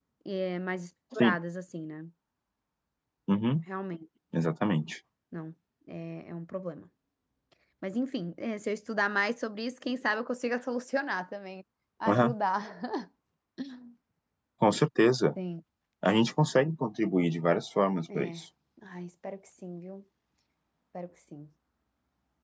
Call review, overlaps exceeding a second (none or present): none